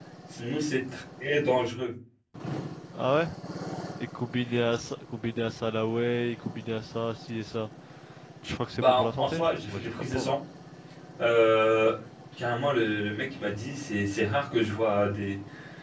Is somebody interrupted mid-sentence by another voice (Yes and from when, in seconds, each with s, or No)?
Yes, from 8.8 s